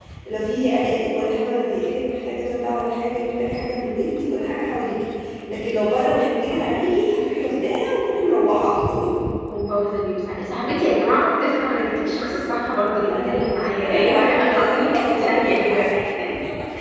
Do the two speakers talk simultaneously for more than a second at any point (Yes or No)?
Yes